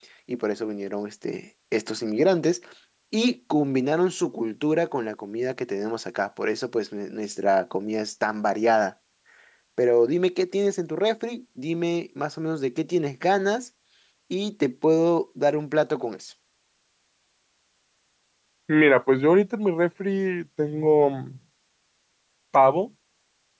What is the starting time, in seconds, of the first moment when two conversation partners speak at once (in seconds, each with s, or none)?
none